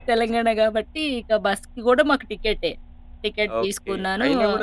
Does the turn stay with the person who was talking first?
No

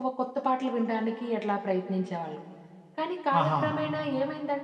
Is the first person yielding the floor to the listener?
No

